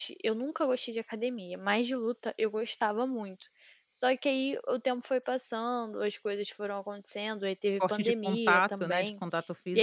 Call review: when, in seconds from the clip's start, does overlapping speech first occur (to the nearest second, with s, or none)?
8 s